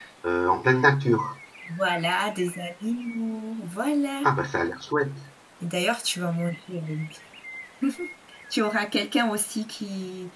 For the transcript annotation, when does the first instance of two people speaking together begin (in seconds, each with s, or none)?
none